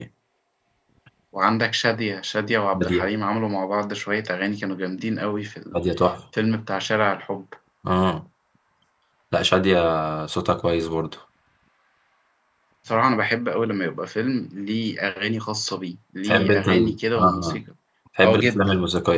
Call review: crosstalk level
present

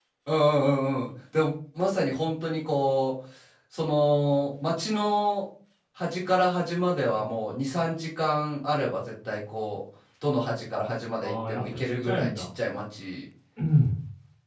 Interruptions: present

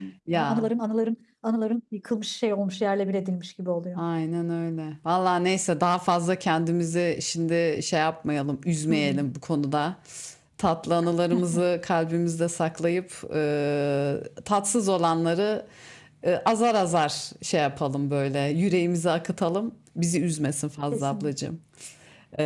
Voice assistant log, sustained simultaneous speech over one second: none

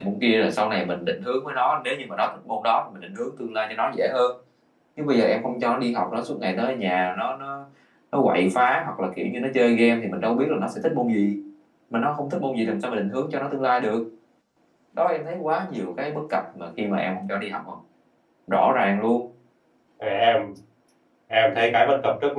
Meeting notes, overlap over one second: none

